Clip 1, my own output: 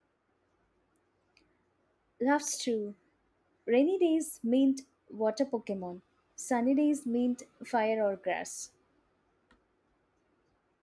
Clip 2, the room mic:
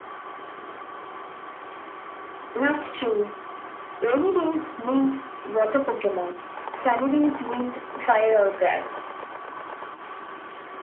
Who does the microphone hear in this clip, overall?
echo only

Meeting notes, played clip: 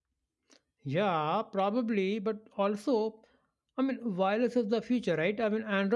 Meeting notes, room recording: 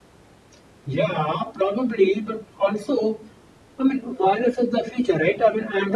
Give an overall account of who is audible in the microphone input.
echo only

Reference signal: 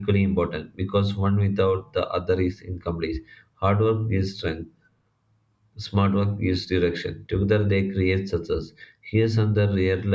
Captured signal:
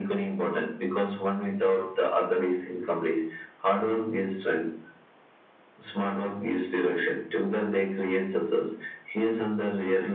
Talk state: echo only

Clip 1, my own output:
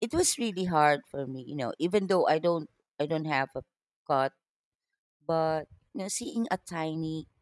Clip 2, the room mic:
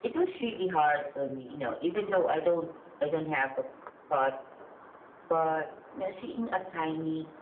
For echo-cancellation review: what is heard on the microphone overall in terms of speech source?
echo only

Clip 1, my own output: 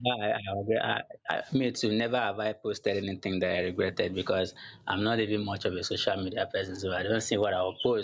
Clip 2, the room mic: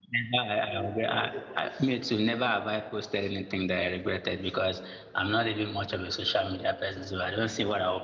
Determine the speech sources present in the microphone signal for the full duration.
both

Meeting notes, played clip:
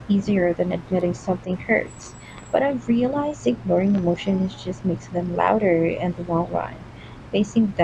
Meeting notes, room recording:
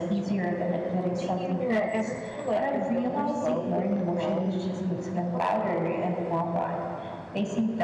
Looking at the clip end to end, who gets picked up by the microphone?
both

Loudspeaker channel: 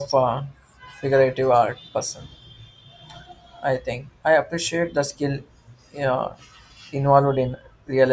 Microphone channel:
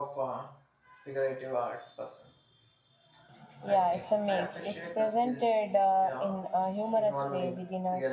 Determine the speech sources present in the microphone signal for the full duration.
both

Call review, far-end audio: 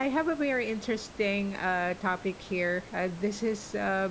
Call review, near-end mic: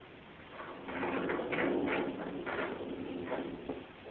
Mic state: neither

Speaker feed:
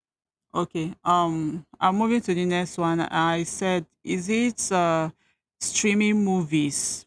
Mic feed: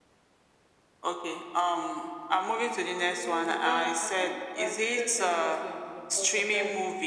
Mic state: both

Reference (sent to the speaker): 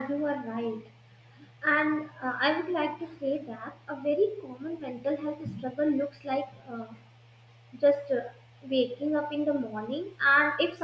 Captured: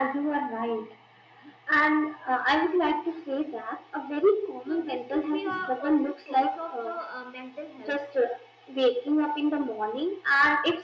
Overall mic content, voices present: both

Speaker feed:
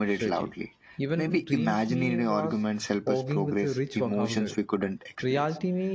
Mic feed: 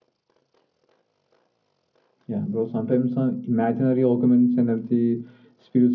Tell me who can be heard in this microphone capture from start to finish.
user only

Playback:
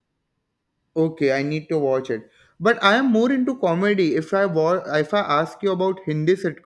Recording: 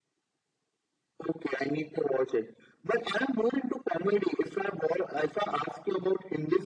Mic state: echo only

